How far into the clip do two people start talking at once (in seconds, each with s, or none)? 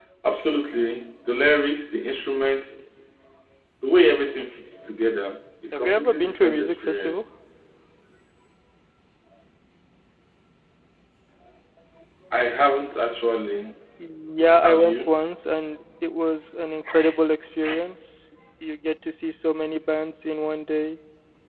5.7 s